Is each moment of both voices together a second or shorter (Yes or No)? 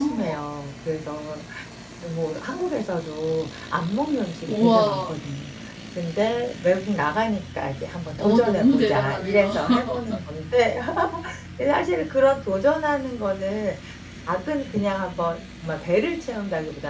No